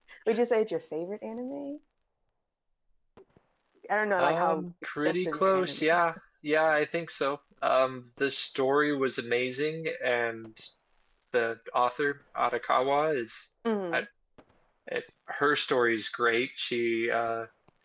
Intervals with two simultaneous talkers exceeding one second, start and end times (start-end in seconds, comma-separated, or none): 4.2-5.8